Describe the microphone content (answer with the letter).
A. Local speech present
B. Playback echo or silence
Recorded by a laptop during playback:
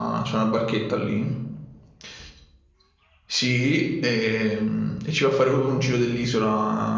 A